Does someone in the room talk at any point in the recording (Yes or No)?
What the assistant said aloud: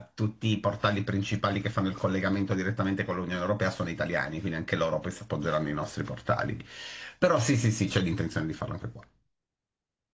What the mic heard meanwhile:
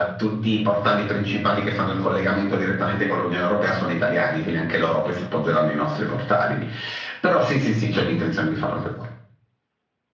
No